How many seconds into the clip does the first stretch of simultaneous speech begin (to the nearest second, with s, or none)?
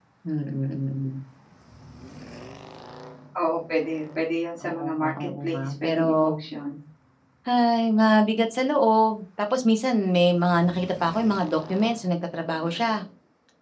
5 s